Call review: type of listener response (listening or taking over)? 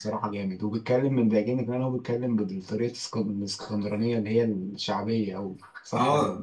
taking over